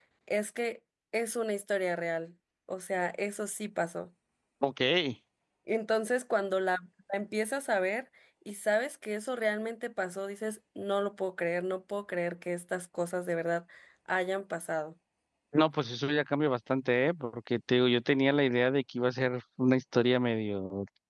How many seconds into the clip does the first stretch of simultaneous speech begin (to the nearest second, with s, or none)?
none